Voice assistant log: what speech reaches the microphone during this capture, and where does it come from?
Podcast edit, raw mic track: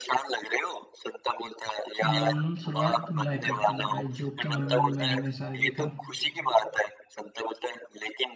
both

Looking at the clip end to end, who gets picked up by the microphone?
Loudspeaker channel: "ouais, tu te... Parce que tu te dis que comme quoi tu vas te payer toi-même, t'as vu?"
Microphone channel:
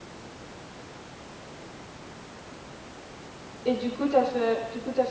user only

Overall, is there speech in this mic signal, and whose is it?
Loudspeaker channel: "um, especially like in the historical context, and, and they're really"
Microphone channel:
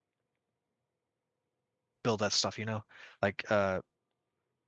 user only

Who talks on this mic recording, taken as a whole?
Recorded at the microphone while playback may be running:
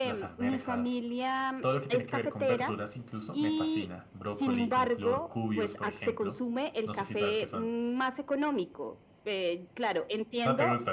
both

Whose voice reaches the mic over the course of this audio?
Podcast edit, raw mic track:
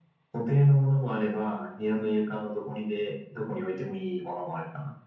echo only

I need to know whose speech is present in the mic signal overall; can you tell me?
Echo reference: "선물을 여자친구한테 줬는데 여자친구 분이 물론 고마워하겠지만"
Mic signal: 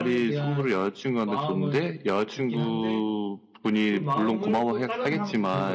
both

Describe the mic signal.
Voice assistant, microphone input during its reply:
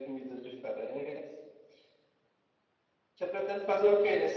echo only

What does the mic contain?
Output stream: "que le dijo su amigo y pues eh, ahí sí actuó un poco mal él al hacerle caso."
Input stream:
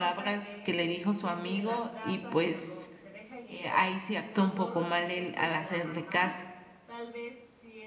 both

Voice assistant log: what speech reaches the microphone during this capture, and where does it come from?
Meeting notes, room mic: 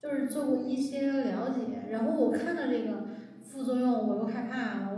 user only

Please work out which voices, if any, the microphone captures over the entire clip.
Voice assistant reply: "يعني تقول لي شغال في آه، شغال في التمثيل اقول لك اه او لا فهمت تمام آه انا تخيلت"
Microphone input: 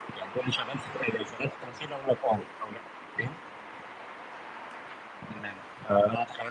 echo only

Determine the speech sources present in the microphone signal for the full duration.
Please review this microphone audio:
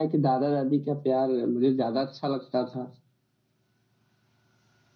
user only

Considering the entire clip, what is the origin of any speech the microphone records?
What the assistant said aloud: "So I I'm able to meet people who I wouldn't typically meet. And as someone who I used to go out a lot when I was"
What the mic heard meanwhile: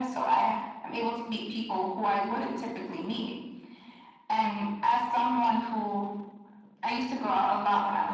echo only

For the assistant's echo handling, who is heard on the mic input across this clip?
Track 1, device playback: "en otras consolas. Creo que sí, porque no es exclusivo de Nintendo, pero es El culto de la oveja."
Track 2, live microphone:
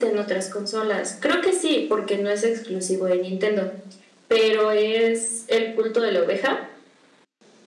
echo only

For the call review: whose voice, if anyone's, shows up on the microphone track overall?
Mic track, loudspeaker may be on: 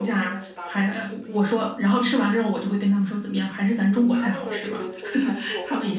both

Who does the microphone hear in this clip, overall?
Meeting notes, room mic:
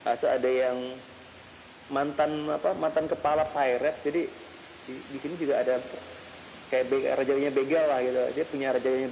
echo only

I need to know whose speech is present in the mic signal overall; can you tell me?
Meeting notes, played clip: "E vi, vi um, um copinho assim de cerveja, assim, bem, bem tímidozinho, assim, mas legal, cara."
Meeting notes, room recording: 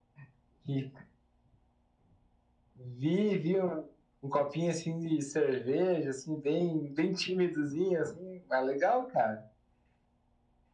echo only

